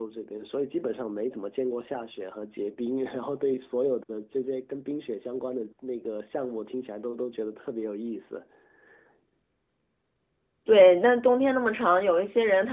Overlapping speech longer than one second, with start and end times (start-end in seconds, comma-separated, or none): none